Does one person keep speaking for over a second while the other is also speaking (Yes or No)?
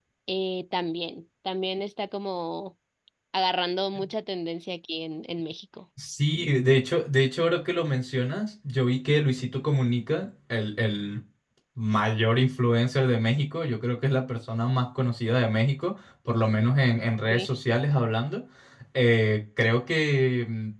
No